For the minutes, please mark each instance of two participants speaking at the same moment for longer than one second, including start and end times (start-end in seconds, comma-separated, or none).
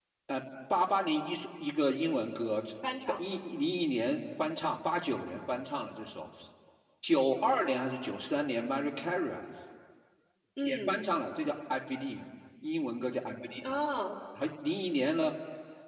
none